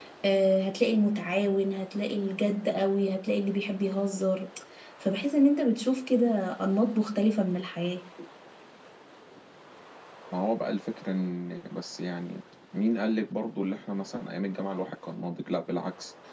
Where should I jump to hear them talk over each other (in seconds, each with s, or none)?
none